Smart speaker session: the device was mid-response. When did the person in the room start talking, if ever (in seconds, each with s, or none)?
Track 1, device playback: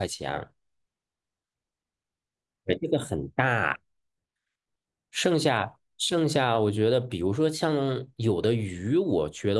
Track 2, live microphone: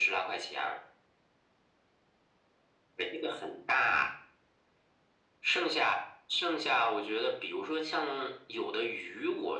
none